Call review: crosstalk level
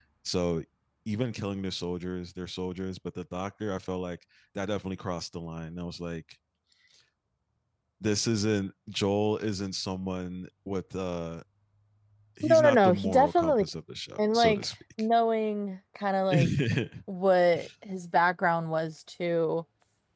present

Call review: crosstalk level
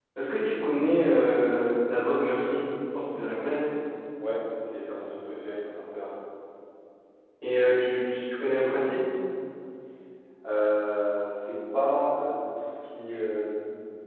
none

